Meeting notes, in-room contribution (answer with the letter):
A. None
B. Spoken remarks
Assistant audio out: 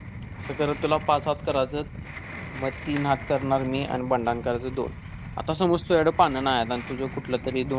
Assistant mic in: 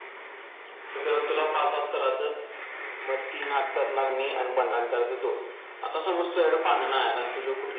A